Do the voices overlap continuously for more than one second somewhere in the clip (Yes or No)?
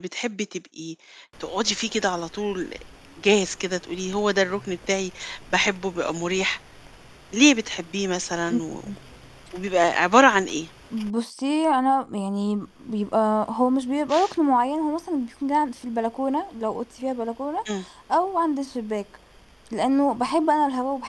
No